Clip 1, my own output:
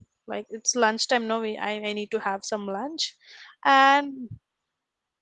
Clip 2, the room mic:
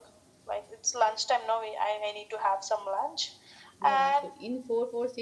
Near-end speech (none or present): present